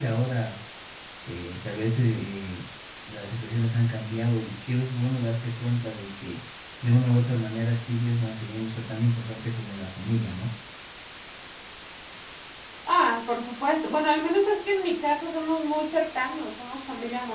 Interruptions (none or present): none